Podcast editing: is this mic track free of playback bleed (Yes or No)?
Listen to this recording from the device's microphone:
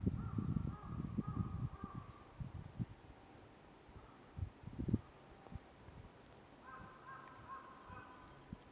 Yes